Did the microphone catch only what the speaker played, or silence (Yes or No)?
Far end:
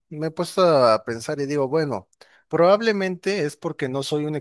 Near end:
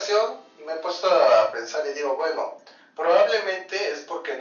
Yes